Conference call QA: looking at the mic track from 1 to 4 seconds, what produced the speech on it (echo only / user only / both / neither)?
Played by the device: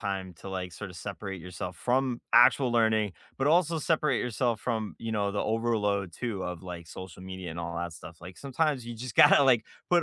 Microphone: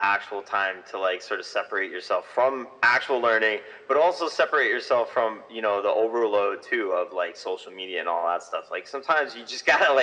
echo only